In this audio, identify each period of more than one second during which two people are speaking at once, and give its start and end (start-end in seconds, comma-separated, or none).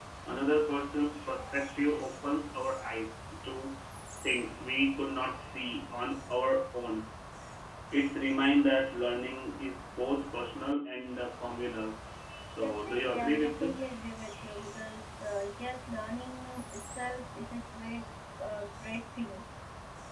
12.6-13.9